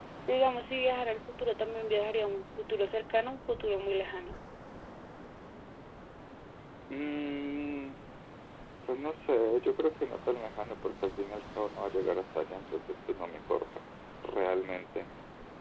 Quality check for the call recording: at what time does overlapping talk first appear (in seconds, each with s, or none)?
none